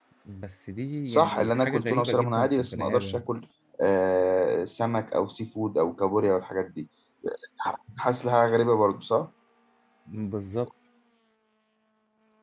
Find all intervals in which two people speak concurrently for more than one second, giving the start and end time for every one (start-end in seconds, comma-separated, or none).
1.1-3.2